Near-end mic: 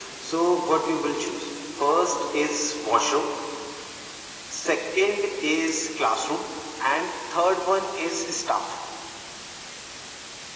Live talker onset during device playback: none

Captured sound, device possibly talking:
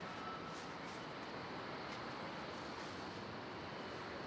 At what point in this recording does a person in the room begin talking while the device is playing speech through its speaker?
none

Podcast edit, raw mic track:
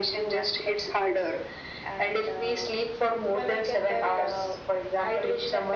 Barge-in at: none

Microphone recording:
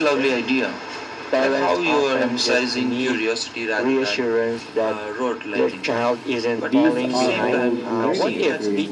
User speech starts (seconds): 7 s

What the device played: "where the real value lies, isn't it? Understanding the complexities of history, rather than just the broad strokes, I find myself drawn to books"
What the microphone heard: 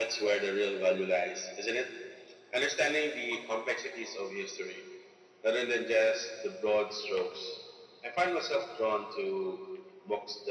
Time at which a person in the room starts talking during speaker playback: none

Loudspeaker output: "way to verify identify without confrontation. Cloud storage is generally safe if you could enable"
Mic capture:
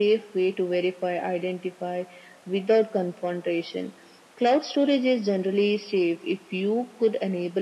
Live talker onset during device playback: none

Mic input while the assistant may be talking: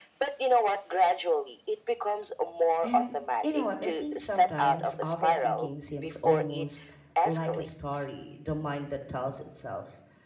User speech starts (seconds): 3 s

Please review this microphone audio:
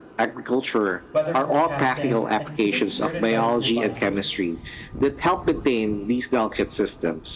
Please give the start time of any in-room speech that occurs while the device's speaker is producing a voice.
1 s

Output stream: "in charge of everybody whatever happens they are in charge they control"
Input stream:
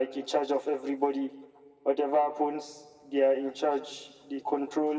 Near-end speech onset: none

